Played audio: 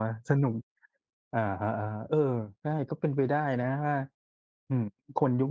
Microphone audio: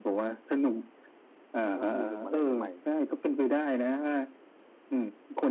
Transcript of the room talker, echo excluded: มันก็ต้องมีมุมอะไรใหม่ ๆ

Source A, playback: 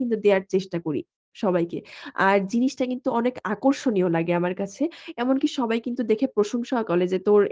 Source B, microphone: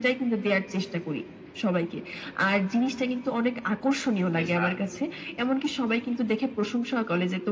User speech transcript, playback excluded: বেশ দারুন বললেন।

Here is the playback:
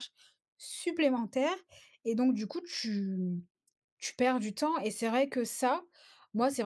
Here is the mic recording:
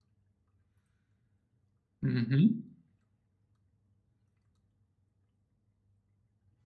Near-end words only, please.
Mmh mh.

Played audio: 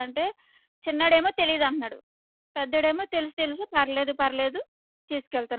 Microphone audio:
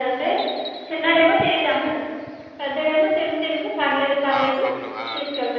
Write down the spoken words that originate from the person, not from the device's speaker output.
ఆ! అవును. ఆ!

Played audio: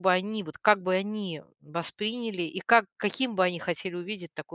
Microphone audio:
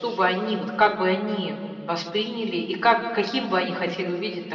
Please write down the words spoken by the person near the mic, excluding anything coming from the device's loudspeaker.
none

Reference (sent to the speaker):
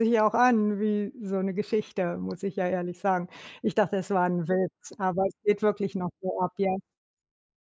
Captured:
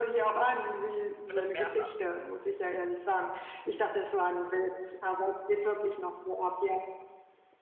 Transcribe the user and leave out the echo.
Und das mehrfach.

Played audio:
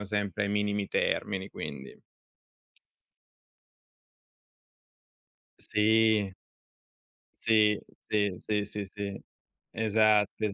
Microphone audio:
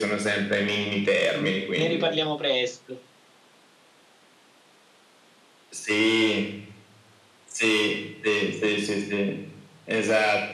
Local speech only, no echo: N ne riparliamo presto.

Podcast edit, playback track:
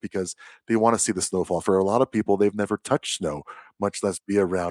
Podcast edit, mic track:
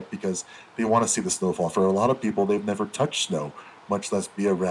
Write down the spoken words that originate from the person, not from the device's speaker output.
none

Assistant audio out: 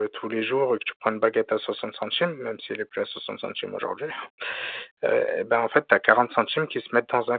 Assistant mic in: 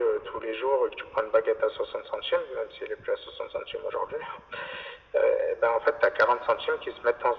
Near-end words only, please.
none

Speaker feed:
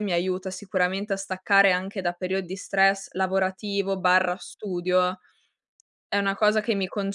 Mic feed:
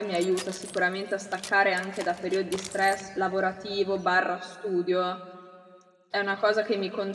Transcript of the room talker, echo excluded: none

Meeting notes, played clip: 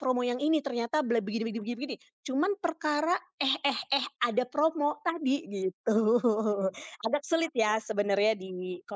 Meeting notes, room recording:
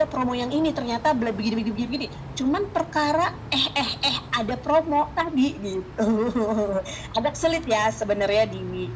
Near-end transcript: none

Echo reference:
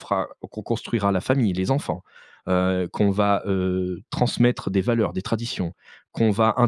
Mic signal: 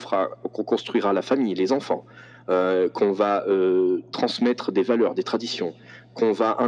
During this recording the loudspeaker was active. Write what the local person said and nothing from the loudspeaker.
none

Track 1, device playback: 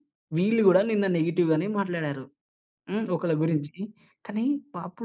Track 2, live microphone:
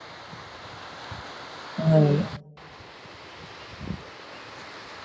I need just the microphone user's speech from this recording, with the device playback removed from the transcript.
అవును.

